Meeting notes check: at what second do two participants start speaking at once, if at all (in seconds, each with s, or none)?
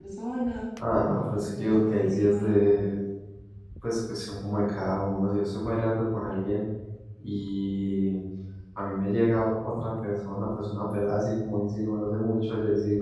1.4 s